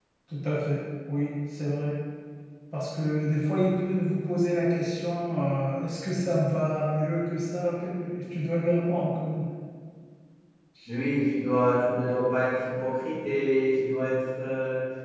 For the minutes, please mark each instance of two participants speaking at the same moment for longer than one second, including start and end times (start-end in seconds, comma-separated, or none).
none